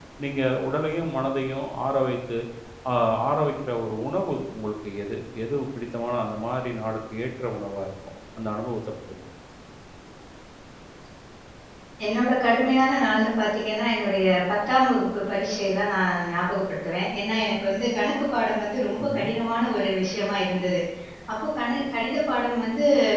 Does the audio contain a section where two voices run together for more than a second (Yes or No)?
No